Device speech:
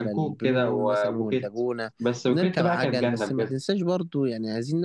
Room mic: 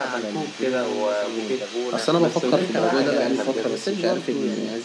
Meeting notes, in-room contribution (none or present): present